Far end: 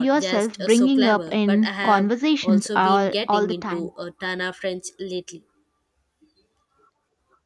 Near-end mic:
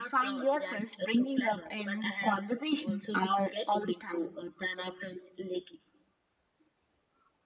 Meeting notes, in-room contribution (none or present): none